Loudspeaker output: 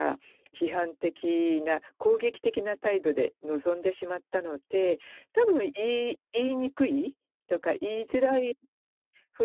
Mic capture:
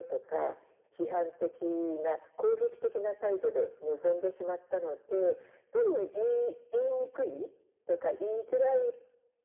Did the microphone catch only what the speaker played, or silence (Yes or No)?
Yes